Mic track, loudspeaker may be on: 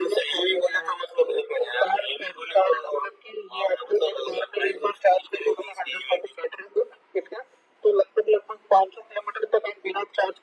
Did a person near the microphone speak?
No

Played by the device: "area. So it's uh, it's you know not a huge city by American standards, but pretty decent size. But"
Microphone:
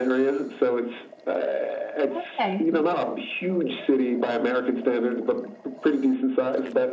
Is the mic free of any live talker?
No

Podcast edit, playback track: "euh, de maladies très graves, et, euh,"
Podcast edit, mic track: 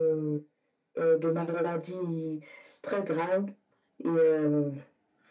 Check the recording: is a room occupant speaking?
No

